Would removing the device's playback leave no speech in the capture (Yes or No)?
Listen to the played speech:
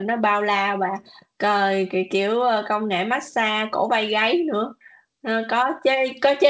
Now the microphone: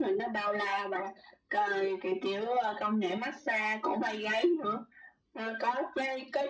Yes